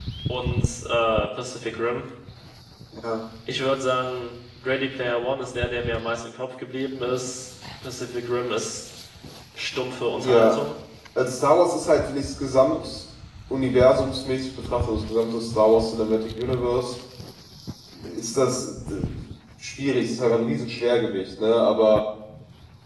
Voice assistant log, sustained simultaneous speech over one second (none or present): none